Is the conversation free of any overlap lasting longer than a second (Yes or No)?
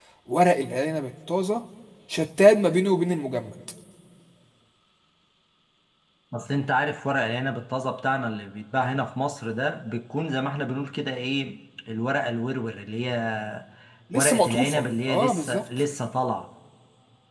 No